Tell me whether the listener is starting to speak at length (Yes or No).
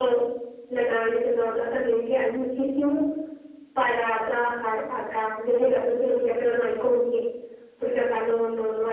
No